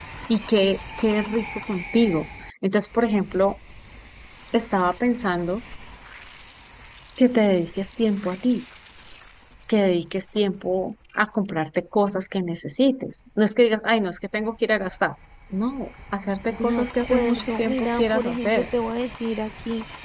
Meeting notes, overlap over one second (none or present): present